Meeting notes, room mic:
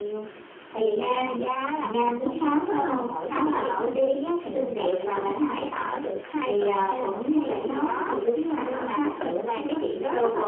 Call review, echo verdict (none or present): present